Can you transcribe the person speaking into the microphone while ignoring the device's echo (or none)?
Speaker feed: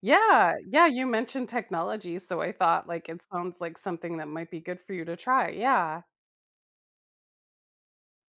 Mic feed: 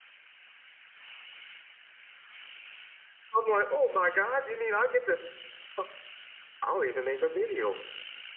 I'm like, "Oh my god, you mean I get to oh, I'll even make a video.